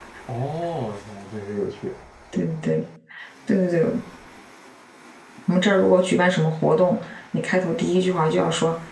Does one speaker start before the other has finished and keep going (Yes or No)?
No